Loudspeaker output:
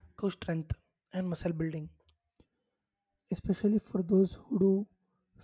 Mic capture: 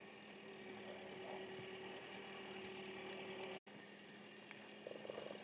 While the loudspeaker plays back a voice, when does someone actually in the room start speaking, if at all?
none

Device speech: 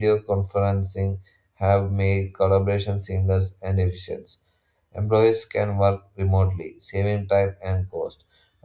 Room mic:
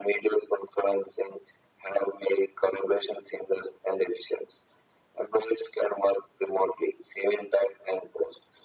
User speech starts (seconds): none

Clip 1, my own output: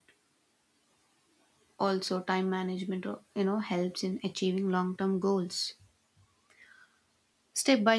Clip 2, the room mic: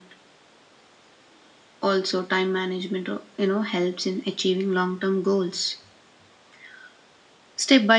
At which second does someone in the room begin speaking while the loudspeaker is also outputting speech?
none

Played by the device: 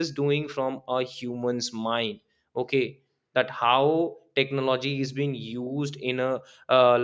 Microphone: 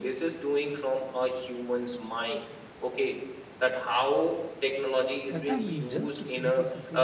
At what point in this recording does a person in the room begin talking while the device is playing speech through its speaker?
5 s

